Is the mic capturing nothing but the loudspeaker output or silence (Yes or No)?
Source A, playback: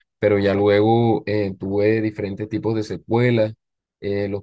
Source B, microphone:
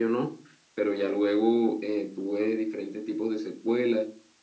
Yes